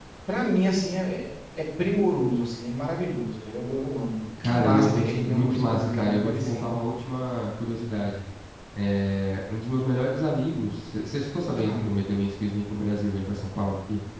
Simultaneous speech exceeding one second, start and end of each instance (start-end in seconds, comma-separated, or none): 4.4-6.8